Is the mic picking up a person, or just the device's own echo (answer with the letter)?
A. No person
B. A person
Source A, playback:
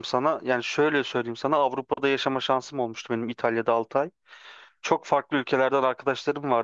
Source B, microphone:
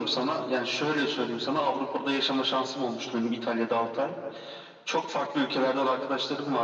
A